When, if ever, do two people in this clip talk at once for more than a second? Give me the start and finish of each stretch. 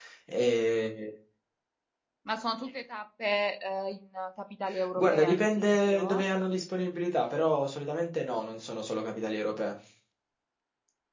5.0-6.2

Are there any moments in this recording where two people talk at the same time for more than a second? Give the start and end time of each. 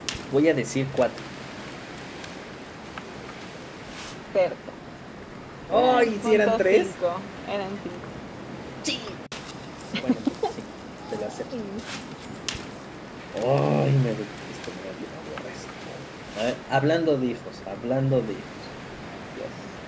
5.7-6.9

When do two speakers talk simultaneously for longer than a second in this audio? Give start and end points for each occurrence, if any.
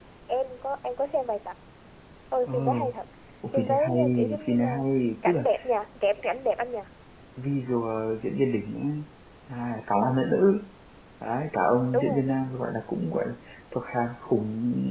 3.5-4.8

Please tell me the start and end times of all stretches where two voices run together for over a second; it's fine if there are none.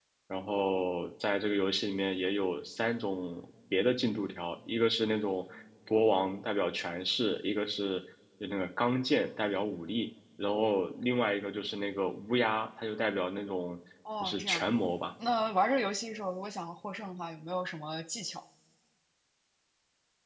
none

